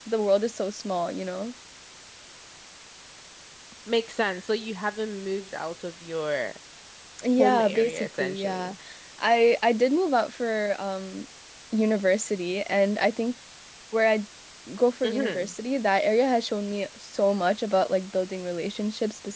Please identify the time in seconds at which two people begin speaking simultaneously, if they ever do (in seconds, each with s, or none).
7.4 s